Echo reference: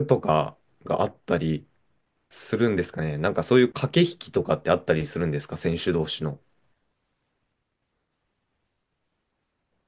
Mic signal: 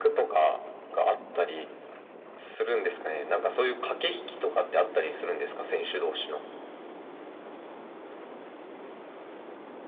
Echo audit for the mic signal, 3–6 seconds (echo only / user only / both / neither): echo only